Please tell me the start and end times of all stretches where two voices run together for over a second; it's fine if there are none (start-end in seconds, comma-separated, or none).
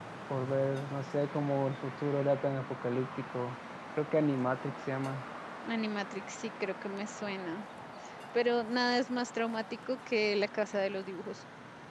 none